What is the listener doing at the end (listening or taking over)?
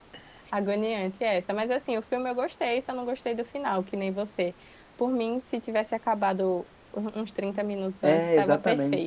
taking over